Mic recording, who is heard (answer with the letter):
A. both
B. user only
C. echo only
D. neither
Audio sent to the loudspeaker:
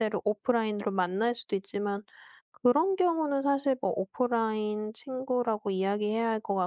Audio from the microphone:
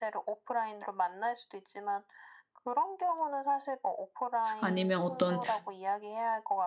A